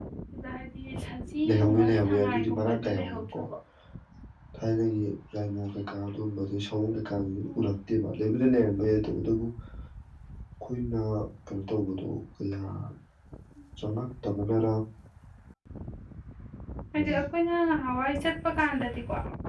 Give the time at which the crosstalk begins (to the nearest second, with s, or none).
1 s